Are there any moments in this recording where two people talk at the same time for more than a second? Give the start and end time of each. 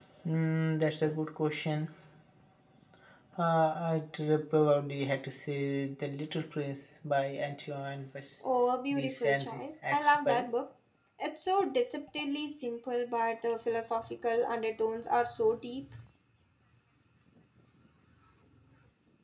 8.9-10.5

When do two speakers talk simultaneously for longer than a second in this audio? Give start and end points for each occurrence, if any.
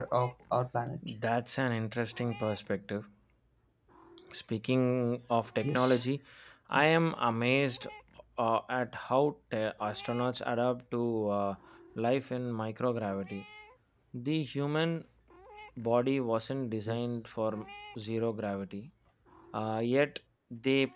none

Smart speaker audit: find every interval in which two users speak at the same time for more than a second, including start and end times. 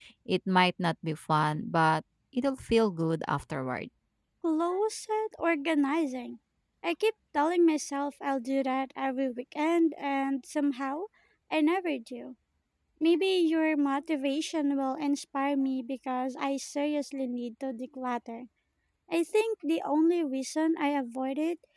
none

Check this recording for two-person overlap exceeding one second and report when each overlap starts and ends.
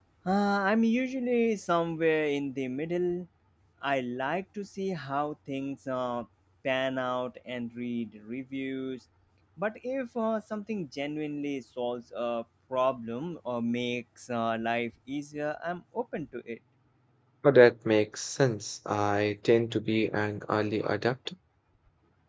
none

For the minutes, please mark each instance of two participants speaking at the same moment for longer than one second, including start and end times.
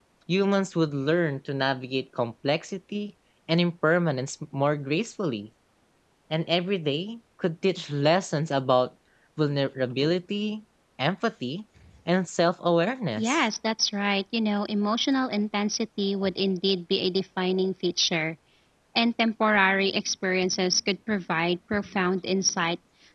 none

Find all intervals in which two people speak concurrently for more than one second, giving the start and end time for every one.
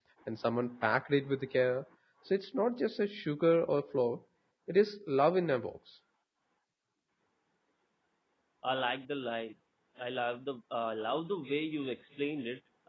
none

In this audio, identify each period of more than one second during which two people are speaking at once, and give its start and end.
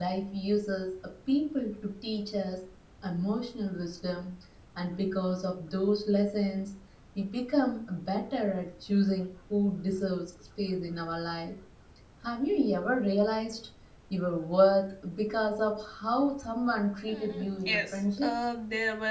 17.1-18.3

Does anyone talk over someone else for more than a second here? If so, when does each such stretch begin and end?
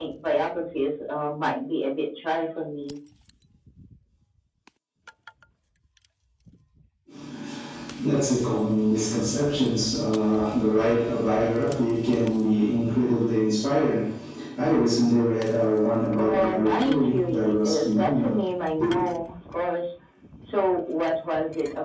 16.2-18.4

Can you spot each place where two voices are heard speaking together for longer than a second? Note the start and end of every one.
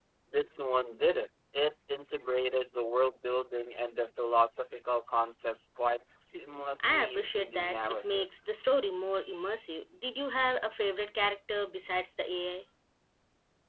6.8-8.2

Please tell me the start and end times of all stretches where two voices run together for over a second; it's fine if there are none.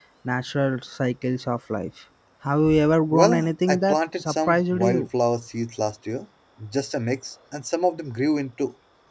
3.1-5.1

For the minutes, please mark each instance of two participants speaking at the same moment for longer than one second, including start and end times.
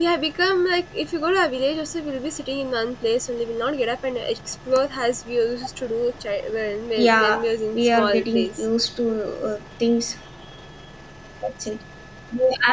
7.0-8.7

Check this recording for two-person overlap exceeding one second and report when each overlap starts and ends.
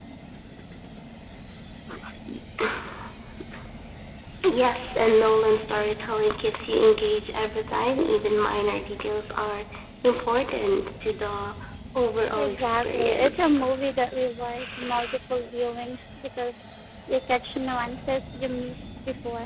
12.4-13.6

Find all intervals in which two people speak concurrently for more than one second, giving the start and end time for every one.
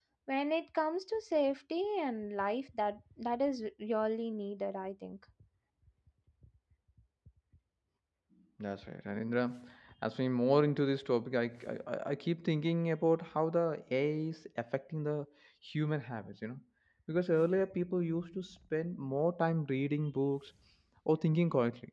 none

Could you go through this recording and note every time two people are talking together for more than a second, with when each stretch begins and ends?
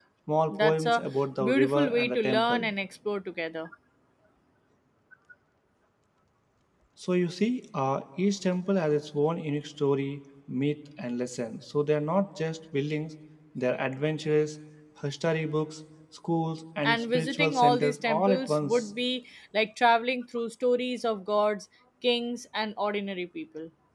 1.4-2.7, 16.8-18.9

